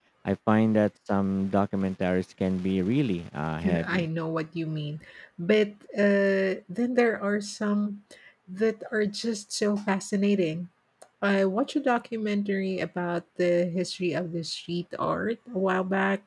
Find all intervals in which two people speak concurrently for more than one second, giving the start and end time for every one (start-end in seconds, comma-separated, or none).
none